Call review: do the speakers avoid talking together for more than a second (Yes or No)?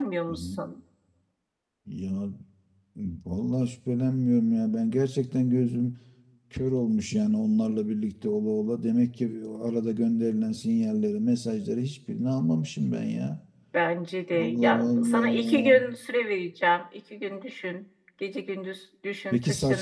No